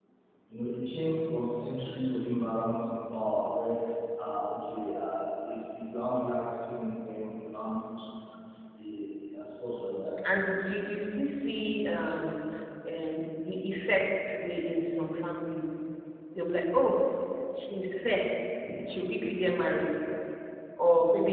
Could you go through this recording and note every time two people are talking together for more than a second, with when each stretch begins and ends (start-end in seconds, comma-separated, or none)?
none